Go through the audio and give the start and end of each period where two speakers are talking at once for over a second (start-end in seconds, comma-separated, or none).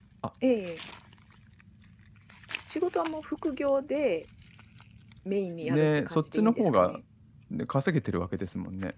5.6-7.0